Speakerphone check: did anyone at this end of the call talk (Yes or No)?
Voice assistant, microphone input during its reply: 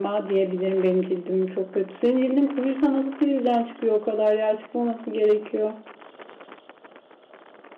Yes